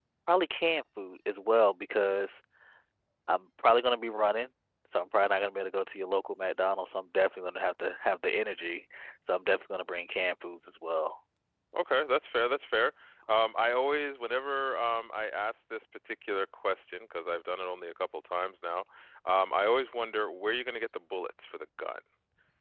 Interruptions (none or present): none